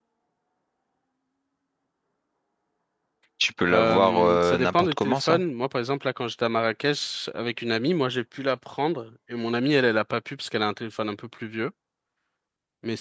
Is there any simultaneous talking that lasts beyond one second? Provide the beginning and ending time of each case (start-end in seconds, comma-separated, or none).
3.7-5.4